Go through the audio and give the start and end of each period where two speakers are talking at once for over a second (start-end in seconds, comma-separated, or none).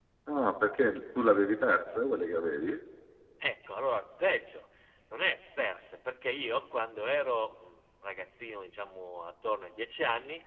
none